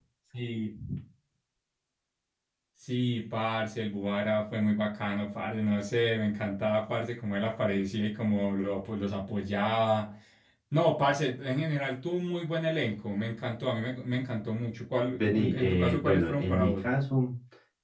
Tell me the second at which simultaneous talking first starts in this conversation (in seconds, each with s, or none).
15.1 s